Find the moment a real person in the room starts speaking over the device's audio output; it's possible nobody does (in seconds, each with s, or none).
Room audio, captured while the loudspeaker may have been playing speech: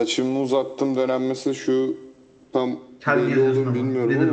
3.0 s